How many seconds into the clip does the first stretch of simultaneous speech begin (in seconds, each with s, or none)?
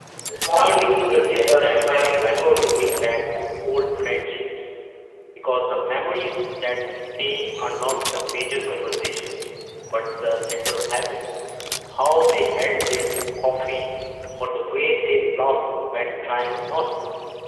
0.5 s